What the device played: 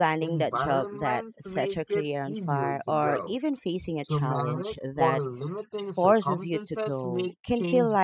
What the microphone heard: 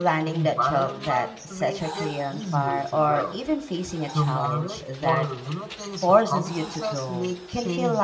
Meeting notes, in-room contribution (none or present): none